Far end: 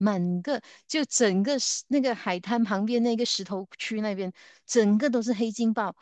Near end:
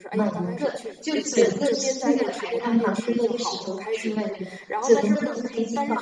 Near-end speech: present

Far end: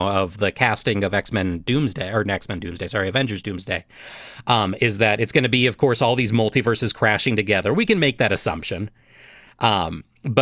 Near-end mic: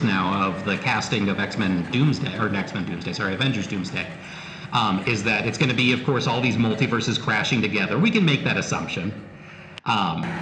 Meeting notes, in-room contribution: none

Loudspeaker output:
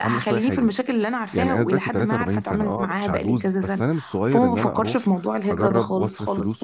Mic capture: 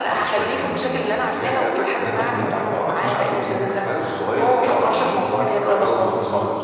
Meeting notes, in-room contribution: present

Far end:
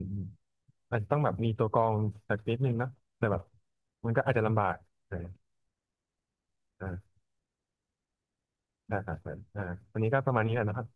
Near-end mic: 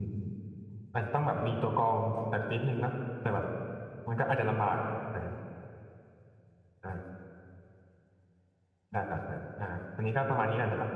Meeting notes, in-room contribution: none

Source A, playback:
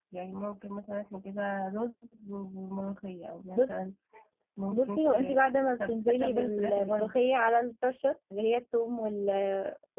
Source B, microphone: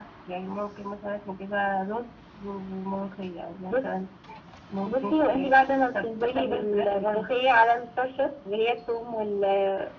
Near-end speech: none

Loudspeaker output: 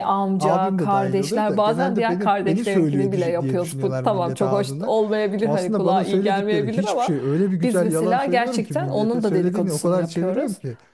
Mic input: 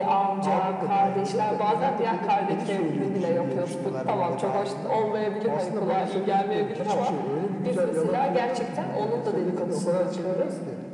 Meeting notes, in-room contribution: none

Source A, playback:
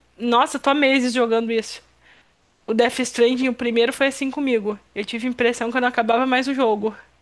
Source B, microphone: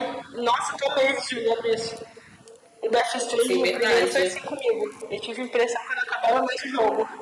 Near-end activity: present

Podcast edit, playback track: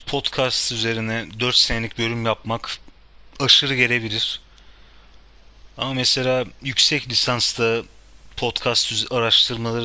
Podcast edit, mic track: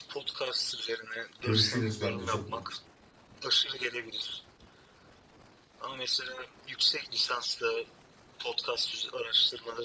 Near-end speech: present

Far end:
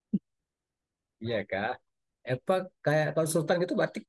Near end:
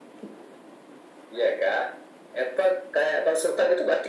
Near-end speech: none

